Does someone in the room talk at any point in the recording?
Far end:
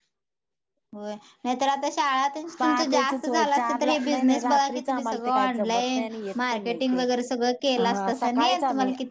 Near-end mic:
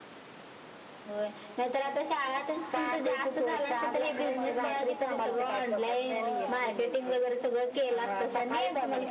Yes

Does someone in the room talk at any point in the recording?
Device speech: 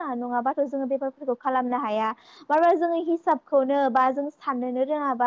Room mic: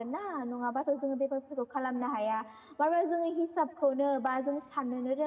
No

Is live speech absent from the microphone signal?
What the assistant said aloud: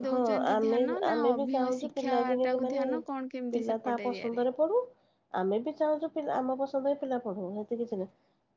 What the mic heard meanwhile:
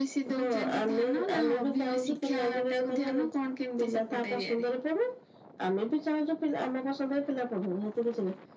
Yes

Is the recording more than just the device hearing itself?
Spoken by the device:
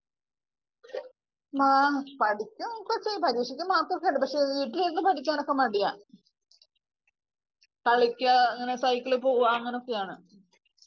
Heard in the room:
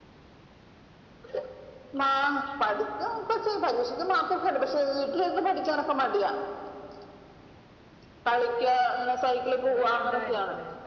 Yes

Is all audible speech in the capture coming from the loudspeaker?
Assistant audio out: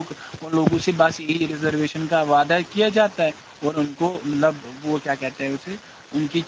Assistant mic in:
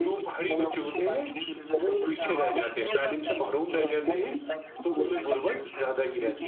No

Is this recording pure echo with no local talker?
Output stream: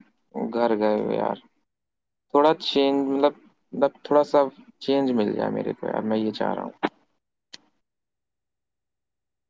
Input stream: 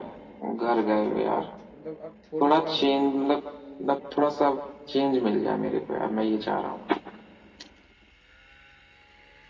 No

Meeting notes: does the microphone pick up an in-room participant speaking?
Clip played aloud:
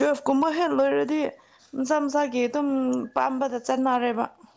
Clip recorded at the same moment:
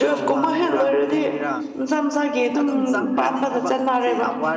Yes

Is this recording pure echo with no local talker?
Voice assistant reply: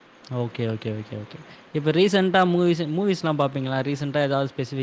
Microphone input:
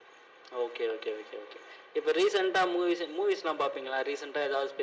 Yes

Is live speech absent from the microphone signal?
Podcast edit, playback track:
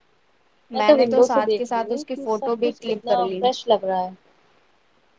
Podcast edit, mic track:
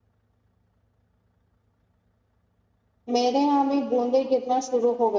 No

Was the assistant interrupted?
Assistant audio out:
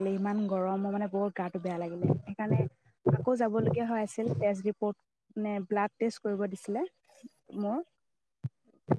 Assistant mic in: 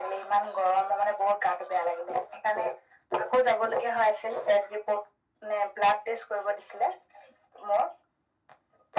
No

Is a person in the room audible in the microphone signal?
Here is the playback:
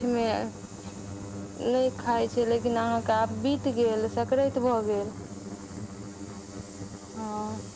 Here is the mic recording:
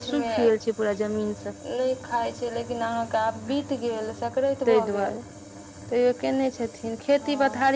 Yes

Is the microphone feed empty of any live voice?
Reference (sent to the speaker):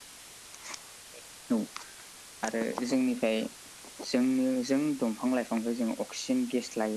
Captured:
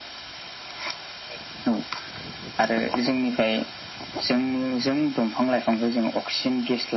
Yes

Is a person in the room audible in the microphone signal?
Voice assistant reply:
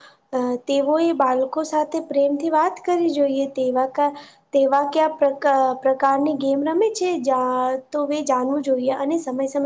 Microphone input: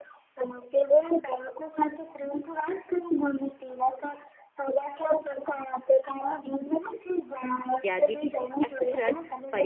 Yes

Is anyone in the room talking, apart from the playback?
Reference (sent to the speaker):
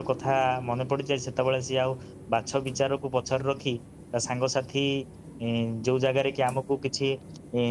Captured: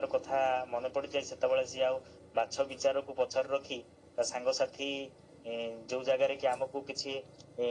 No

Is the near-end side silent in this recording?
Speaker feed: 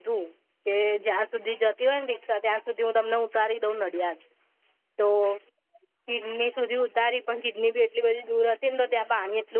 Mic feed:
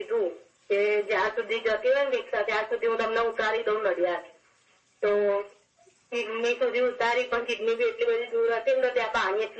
Yes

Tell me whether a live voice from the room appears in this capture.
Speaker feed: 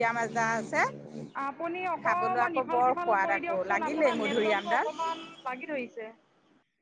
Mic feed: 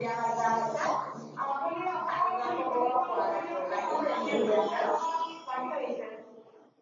No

